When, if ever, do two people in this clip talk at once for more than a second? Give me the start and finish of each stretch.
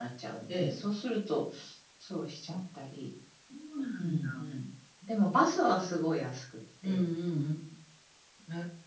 none

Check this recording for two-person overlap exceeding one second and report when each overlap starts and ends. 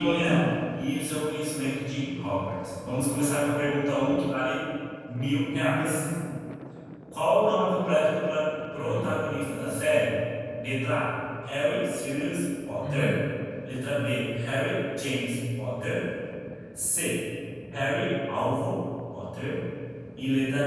none

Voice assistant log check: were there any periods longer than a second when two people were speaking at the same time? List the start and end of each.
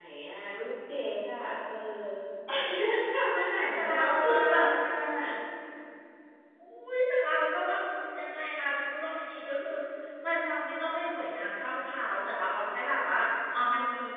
3.3-4.7

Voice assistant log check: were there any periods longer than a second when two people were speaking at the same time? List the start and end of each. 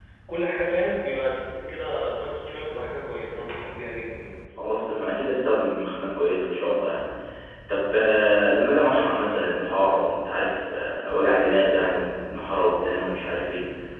none

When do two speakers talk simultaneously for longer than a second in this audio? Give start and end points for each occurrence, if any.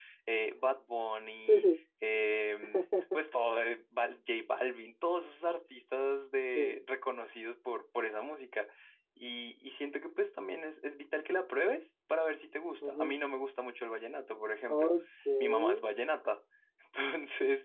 none

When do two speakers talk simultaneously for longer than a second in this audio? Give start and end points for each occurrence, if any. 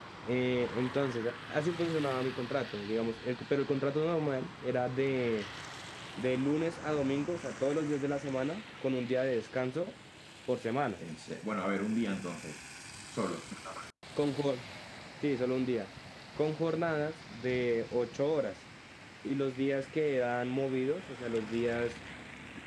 none

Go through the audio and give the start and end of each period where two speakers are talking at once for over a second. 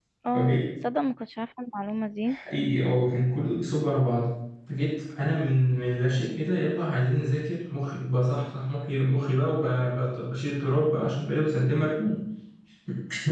none

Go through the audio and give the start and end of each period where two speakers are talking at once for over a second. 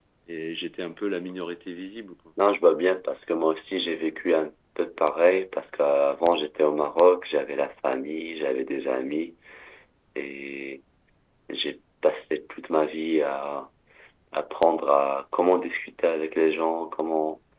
none

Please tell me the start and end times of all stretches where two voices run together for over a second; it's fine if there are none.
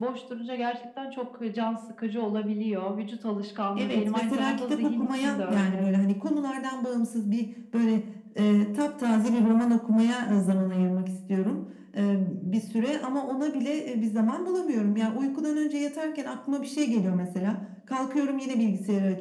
3.8-5.9

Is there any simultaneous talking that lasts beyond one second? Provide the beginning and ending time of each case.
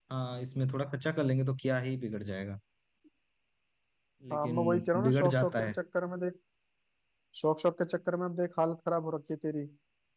4.3-5.7

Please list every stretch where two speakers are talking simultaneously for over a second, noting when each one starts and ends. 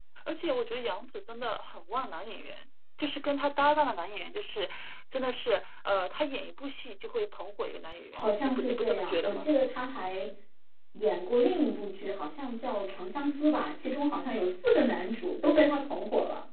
8.1-9.5

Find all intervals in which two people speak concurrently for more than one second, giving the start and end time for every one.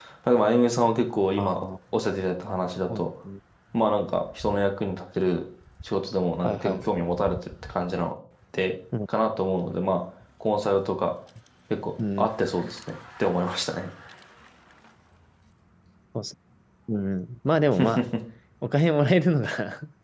none

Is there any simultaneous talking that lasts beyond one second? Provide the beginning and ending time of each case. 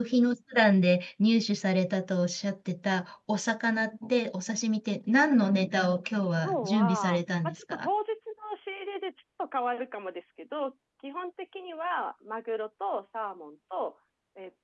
6.4-7.9

